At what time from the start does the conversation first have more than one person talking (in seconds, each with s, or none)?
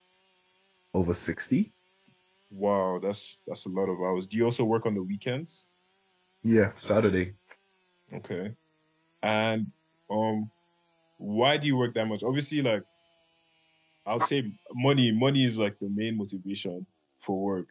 none